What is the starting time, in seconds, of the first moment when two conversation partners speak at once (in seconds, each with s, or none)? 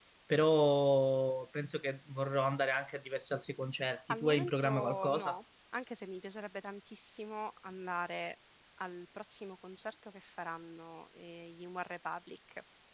4.1 s